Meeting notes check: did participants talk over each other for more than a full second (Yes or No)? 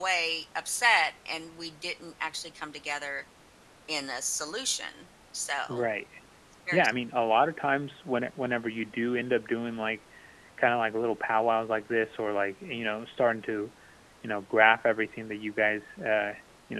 No